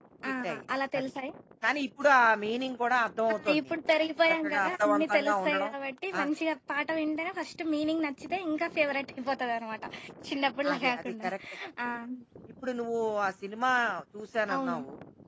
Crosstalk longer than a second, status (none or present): present